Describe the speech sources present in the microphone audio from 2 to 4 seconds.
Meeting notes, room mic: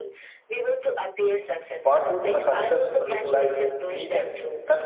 both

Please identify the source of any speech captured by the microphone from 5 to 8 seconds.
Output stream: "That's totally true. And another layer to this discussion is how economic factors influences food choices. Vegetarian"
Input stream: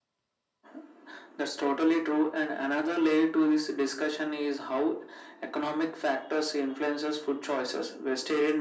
echo only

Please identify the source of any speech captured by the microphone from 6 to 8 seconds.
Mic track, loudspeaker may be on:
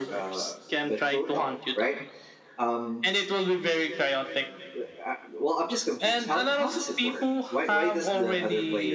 both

